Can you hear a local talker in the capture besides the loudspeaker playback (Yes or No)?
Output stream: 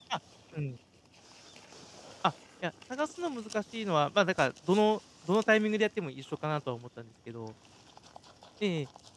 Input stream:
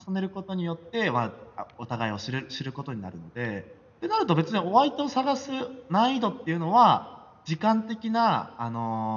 Yes